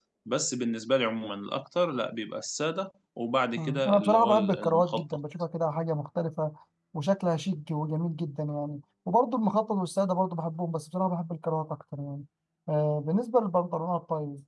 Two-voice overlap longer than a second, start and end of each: 3.6-5.0

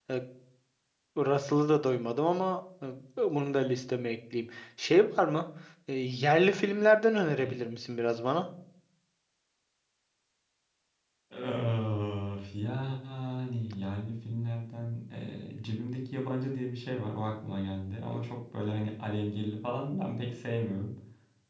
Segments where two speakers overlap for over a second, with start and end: none

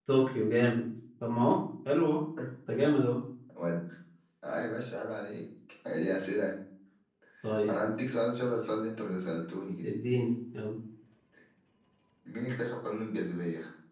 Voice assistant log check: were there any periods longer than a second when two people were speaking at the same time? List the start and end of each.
none

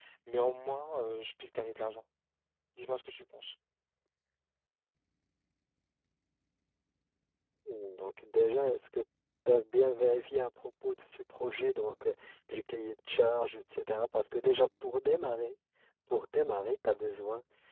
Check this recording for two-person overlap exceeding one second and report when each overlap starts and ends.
none

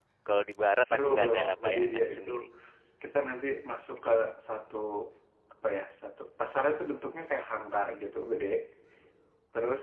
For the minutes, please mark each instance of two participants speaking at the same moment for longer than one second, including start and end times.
0.8-2.3

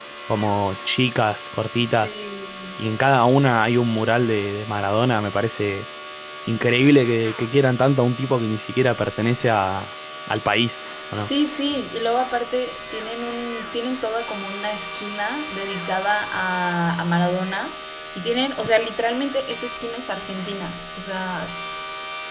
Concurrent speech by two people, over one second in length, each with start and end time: none

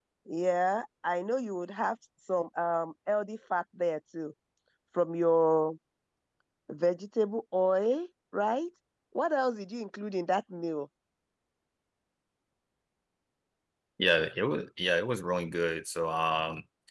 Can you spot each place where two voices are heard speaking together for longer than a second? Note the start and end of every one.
none

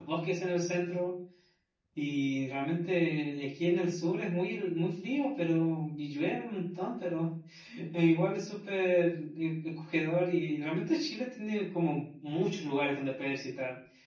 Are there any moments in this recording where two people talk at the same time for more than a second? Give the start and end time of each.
none

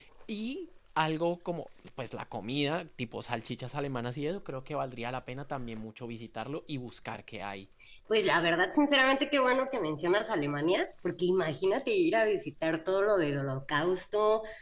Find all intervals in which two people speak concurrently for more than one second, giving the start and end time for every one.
none

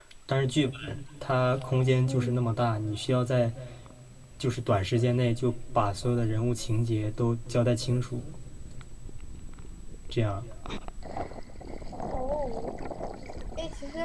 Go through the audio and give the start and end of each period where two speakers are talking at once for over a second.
none

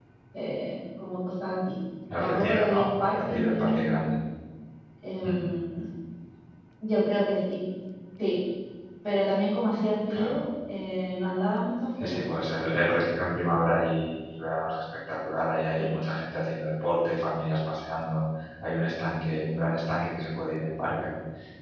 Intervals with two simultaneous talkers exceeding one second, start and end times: 2.2-4.1

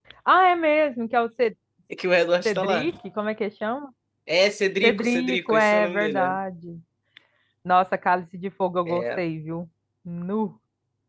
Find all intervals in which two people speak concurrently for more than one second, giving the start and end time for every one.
4.8-6.4

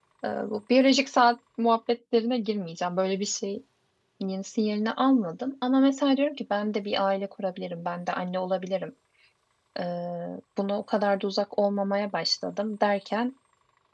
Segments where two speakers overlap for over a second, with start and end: none

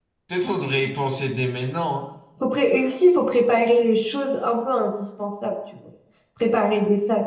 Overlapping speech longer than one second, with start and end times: none

